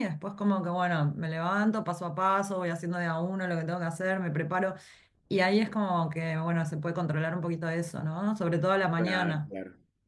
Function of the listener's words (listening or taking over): taking over